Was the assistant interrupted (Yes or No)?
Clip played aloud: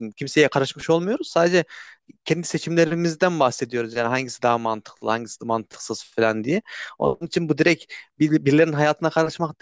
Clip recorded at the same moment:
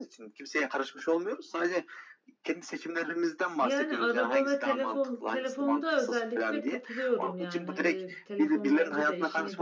Yes